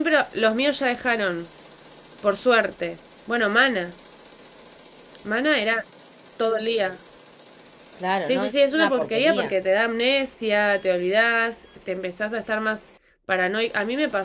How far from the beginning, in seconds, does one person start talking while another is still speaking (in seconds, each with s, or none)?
8.2 s